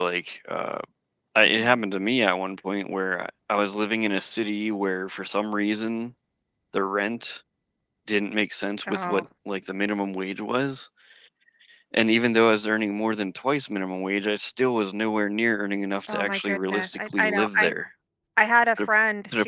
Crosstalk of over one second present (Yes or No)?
Yes